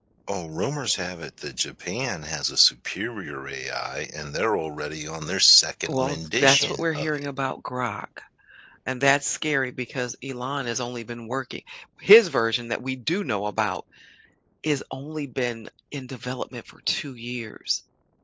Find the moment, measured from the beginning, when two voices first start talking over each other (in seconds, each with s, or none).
5.9 s